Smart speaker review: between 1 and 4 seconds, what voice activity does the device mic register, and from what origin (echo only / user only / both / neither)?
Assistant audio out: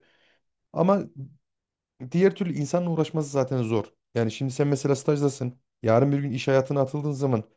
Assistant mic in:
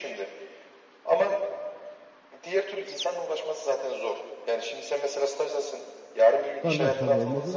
echo only